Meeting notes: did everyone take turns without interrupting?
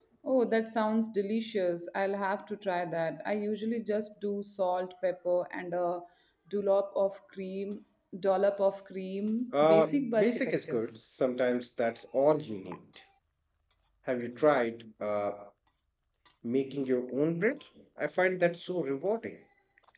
No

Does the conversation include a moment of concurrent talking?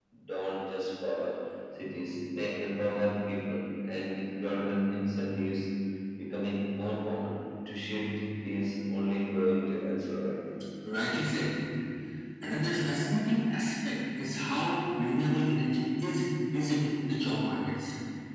No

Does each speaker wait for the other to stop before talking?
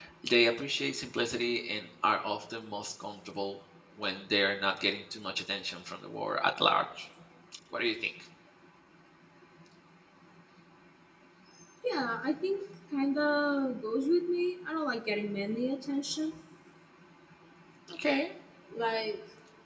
Yes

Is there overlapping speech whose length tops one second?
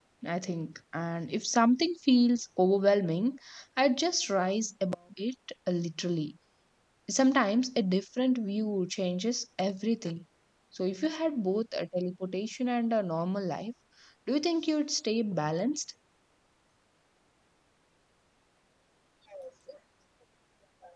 No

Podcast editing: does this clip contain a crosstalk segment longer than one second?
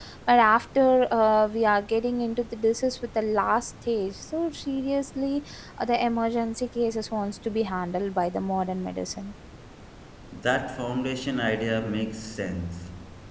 No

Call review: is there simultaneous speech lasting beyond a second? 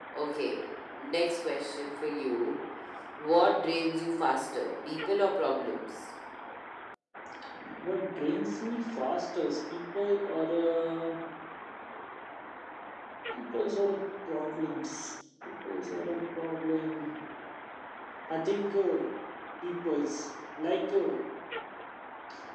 No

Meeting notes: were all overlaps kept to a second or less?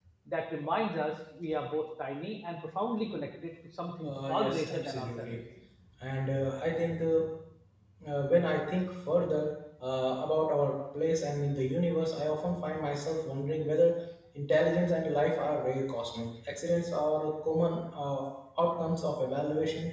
No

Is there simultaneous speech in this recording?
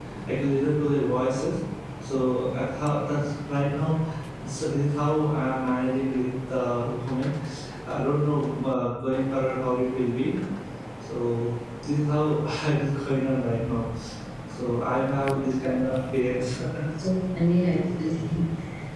No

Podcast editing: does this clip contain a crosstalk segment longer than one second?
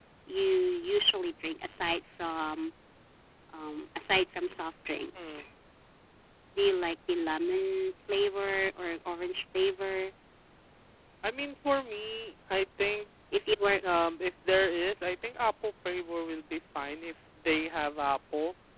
No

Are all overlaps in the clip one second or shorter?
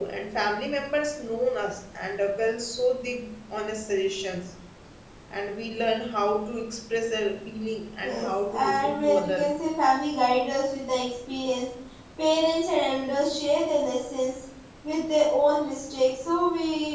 No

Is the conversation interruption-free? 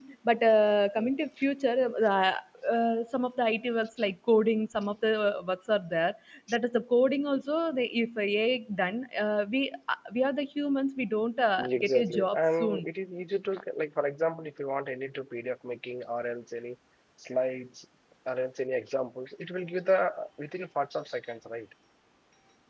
No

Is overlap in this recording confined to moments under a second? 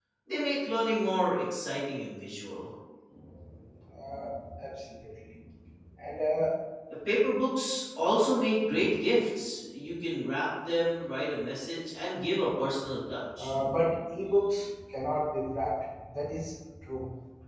Yes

